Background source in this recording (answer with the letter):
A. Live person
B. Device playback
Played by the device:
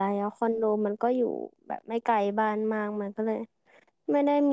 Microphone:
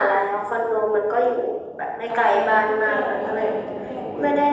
A